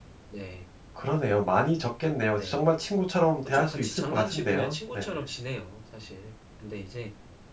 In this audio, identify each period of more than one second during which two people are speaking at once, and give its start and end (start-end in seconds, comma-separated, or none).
3.5-5.2